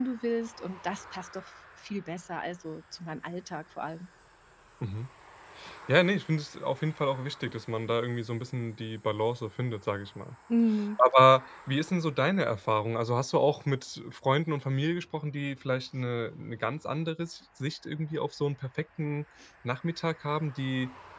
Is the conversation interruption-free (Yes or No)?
Yes